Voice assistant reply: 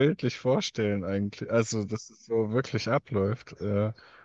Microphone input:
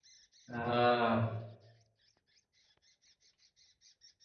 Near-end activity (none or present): present